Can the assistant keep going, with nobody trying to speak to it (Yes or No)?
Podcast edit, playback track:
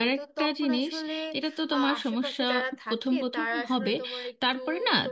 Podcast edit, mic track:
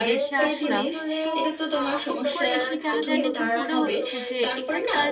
No